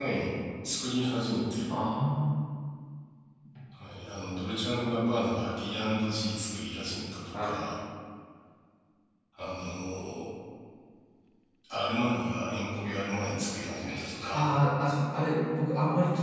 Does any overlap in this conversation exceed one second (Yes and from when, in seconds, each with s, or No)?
No